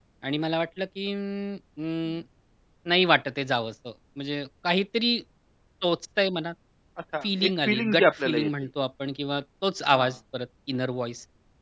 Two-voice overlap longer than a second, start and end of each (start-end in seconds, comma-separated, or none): 7.2-8.5